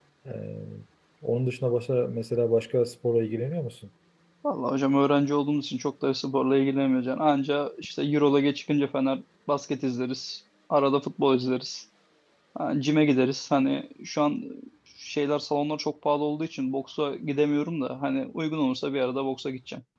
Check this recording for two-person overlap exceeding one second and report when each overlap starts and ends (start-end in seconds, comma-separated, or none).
none